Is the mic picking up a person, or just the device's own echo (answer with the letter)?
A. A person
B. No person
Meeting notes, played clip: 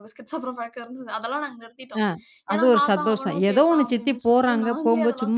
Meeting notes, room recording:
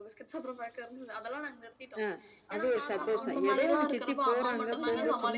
A